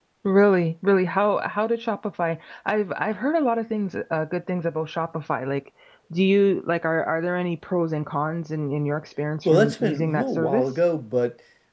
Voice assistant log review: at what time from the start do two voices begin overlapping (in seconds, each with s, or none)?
9.4 s